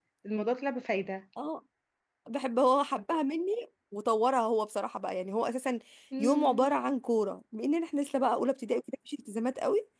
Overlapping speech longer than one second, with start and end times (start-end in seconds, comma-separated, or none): none